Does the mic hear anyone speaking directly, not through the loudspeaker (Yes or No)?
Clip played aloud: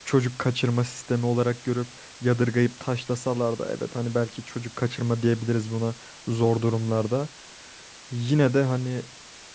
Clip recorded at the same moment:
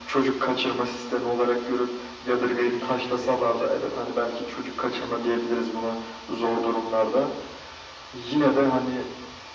Yes